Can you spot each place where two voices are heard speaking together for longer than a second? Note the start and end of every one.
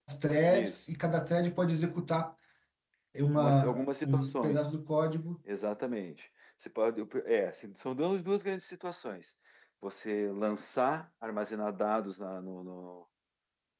3.3-4.7

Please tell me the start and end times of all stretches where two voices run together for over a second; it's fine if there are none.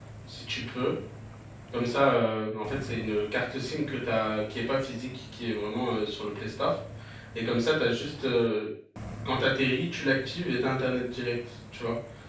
none

